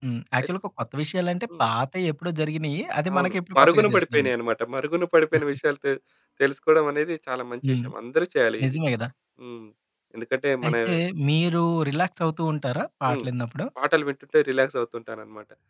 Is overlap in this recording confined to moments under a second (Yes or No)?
No